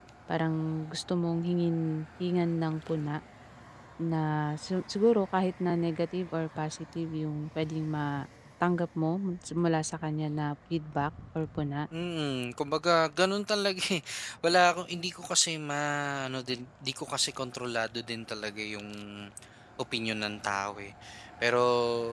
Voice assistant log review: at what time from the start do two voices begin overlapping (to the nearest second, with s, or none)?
none